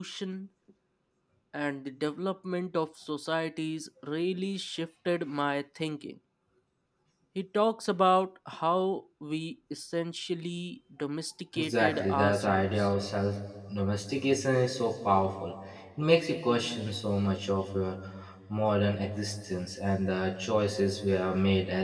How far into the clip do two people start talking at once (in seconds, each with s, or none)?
11.6 s